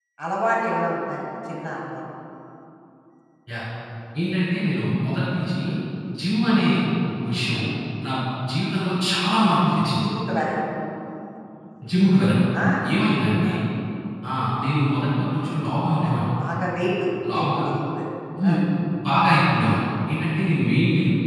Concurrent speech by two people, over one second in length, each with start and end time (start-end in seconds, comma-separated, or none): none